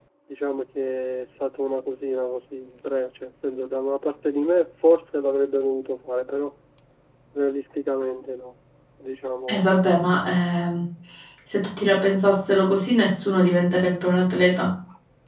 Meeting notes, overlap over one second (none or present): none